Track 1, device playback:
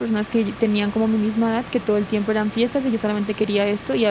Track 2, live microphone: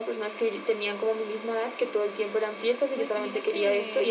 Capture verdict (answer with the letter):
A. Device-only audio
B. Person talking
B